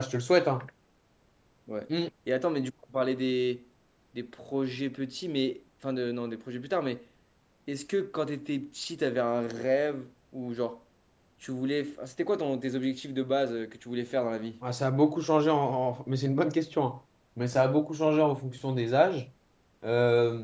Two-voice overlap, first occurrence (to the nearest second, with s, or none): none